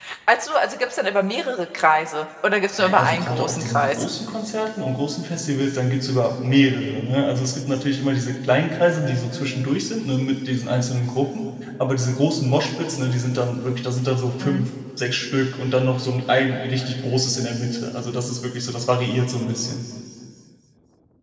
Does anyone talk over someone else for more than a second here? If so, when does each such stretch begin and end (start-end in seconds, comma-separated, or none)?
2.8-4.0